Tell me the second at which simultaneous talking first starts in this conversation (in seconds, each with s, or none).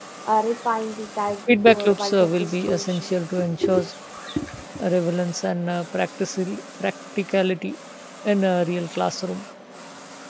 1.5 s